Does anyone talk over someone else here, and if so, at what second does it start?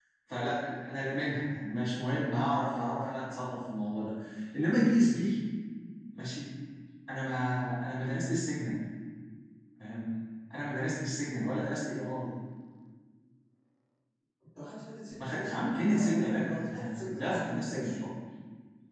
15.2 s

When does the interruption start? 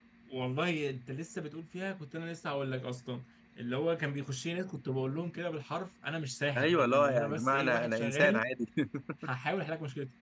6.5 s

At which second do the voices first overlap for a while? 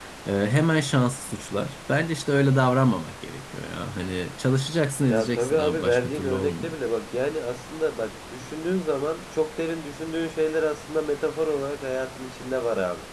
5.1 s

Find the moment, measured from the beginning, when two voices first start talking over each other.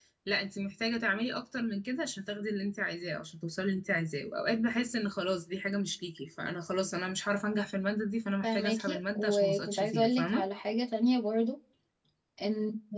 8.4 s

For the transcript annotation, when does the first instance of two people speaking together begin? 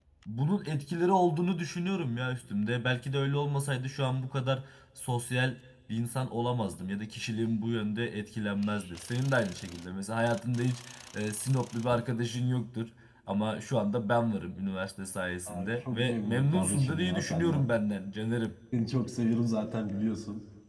15.5 s

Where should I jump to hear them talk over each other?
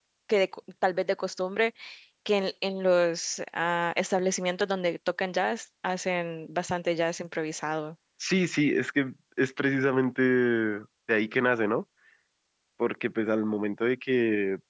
none

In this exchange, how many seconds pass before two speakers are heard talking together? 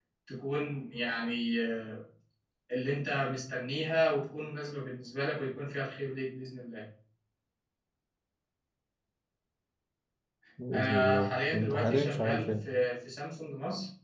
10.7 s

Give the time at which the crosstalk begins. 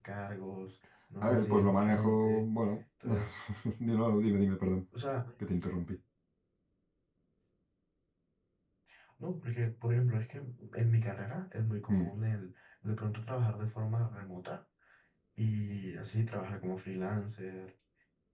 1.2 s

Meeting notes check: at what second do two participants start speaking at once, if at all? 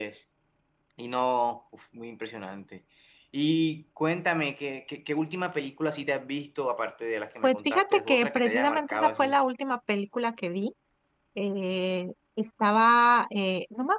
7.4 s

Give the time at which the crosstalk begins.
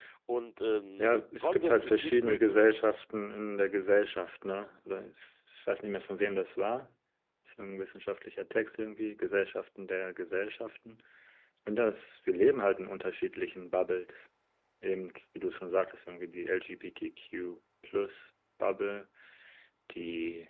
1.0 s

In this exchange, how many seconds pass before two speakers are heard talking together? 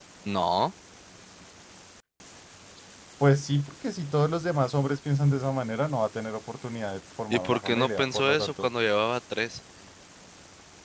7.3 s

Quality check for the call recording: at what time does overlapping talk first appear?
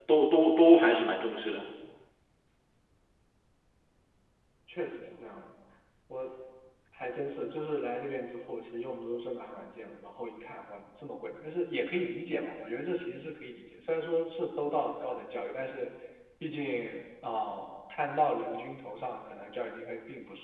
none

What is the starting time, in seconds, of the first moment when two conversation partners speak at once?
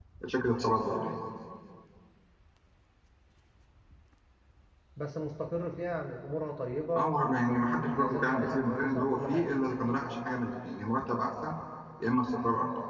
7.0 s

